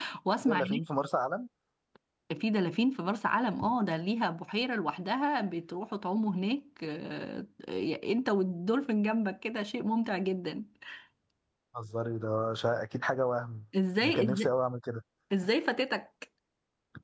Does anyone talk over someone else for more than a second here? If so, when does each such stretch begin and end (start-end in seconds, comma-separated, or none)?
none